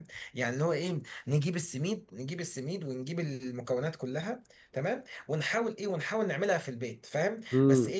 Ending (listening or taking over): listening